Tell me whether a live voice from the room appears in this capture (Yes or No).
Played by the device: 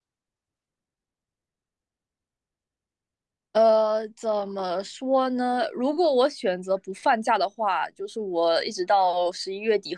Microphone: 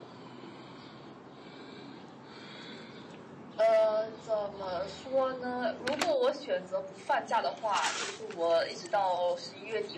No